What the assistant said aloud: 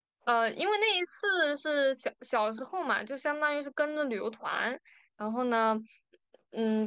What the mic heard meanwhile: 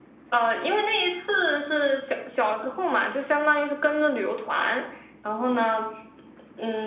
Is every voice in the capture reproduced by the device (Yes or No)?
Yes